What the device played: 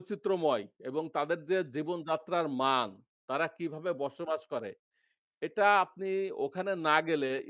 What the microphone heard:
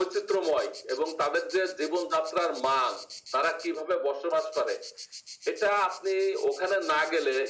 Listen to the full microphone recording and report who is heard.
echo only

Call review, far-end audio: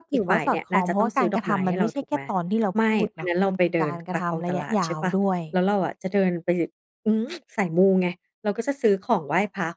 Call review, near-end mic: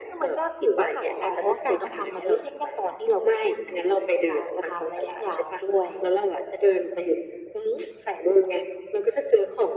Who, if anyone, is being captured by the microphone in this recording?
echo only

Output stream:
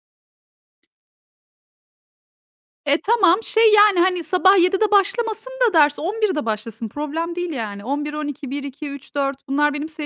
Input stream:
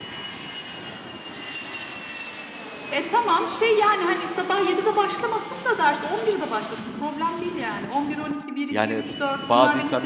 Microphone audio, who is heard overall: both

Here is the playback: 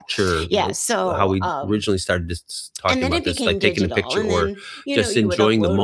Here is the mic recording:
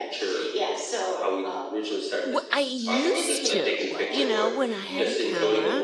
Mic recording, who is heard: both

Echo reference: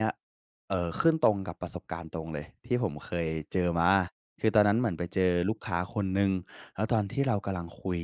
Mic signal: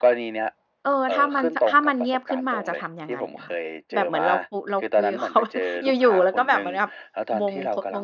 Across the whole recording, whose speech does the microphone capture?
both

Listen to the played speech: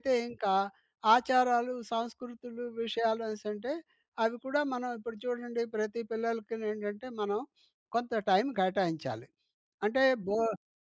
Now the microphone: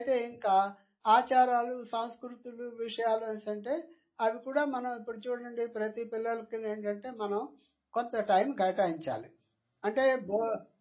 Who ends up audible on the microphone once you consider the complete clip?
echo only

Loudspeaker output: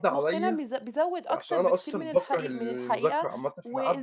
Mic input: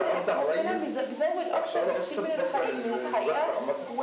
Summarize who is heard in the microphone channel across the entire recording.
both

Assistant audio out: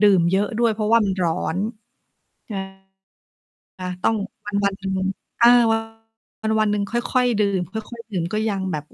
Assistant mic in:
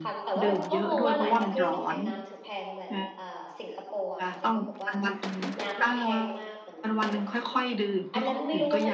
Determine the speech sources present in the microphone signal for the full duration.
both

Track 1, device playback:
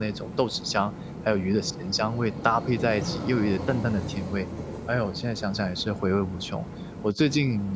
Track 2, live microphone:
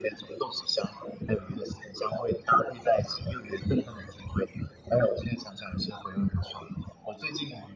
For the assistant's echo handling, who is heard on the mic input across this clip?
echo only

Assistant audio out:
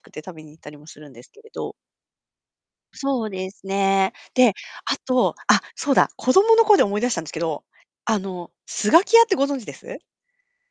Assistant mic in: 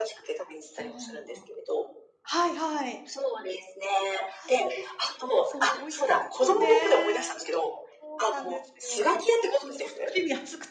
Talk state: both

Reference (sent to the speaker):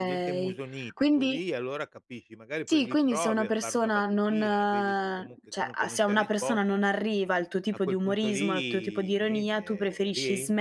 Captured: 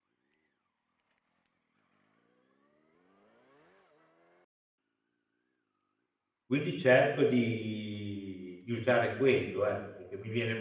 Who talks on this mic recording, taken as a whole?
user only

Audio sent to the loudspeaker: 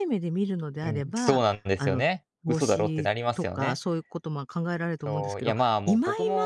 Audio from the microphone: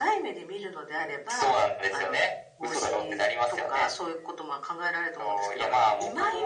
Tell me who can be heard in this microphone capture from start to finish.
echo only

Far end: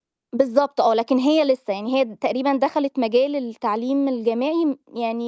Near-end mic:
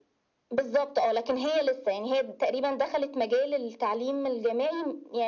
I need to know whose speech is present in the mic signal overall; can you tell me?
echo only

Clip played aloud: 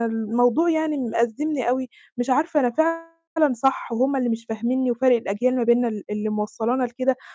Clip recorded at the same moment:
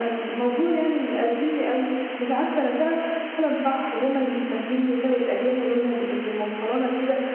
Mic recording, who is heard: echo only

